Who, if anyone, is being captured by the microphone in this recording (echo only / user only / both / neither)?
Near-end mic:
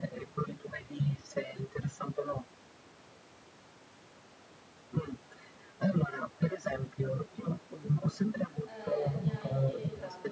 both